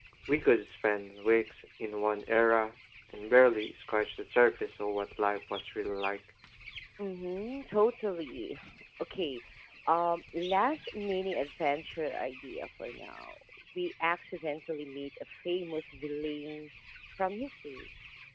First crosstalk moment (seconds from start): none

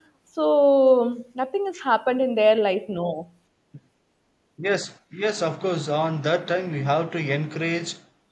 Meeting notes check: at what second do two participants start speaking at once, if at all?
none

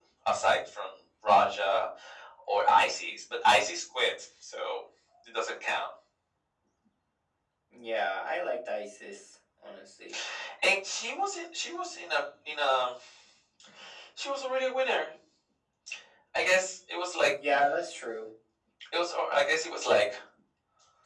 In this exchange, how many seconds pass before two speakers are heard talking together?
none

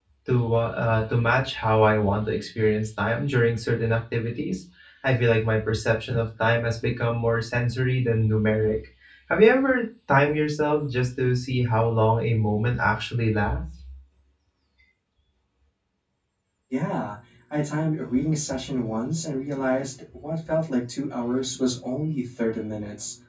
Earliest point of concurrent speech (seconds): none

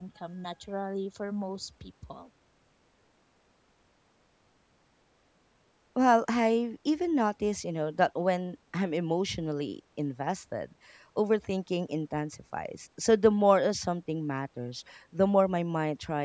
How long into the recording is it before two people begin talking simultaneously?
none

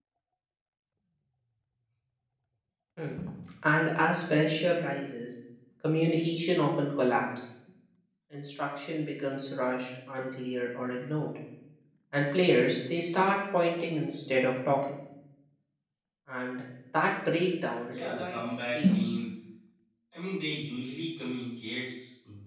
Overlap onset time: 17.9 s

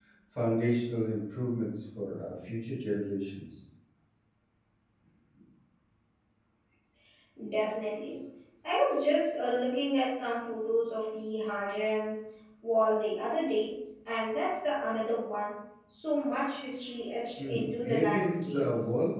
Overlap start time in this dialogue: 17.4 s

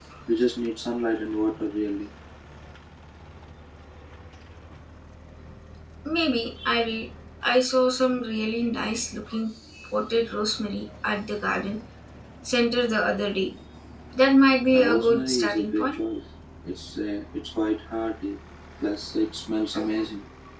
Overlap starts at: 14.7 s

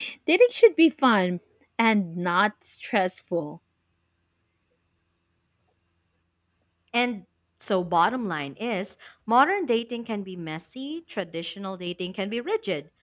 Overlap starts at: none

